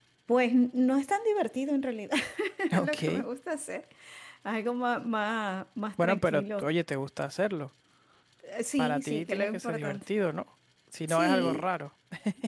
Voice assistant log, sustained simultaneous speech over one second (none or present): present